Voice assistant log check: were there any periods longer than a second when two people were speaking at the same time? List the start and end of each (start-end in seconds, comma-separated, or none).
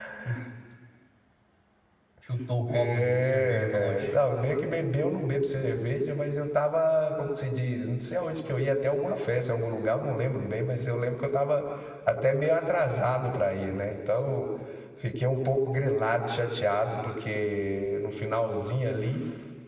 2.7-4.1